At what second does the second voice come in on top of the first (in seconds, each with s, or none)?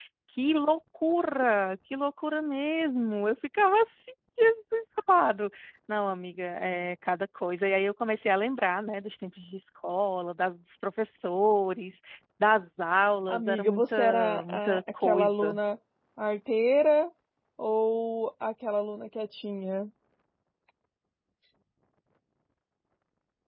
13.3 s